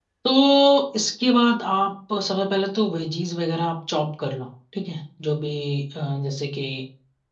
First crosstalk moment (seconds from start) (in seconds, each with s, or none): none